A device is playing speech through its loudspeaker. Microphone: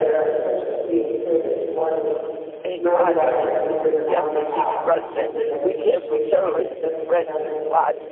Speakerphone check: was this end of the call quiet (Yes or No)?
No